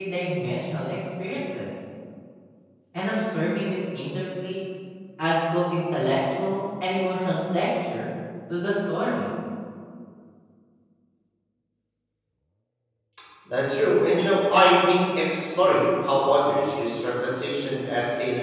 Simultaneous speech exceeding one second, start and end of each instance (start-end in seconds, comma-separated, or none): none